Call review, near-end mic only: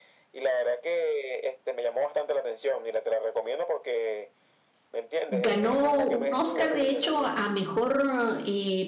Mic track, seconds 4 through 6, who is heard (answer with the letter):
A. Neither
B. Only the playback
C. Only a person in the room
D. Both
D